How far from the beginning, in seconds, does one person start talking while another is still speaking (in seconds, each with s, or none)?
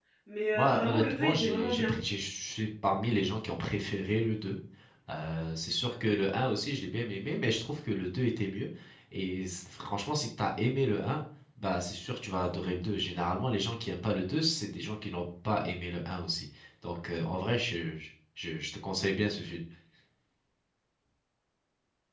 0.6 s